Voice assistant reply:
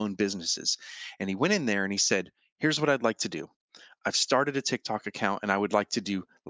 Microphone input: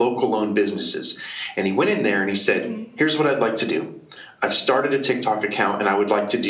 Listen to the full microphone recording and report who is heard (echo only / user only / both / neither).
both